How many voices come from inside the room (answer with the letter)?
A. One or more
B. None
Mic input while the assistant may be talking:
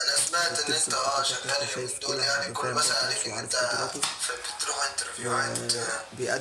A